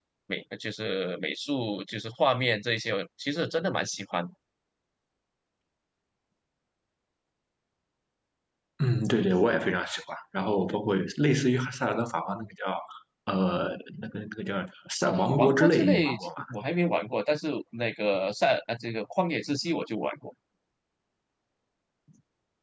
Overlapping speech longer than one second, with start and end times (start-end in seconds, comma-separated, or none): 15.0-16.3